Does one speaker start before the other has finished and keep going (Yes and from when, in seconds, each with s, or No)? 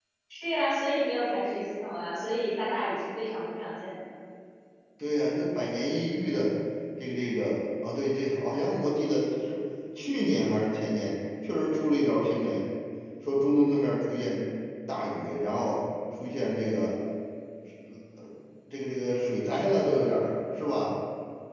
No